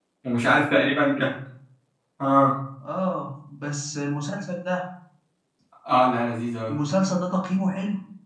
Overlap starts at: none

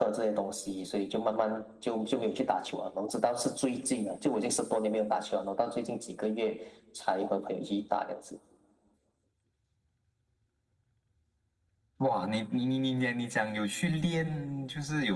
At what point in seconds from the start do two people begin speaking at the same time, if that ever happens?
none

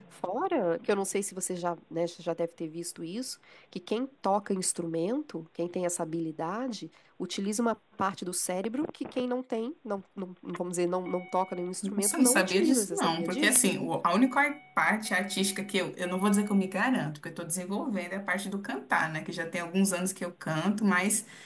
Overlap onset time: 11.8 s

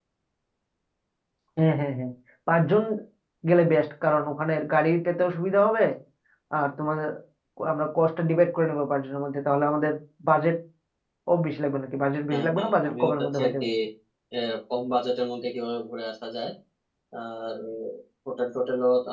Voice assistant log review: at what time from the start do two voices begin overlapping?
12.3 s

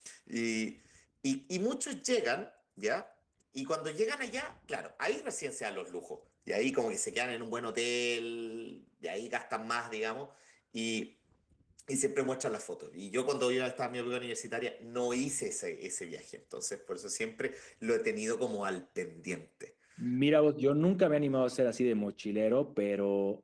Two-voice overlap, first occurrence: none

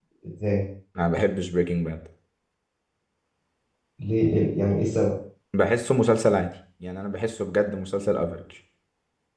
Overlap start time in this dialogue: none

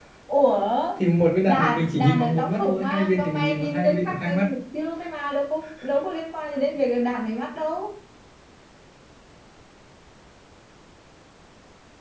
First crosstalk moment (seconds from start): 1.4 s

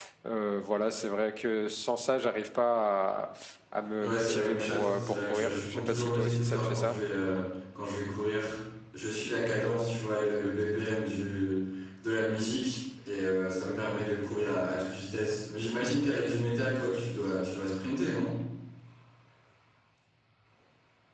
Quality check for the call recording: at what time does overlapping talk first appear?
4.0 s

